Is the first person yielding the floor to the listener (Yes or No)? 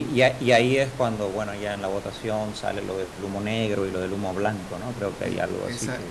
Yes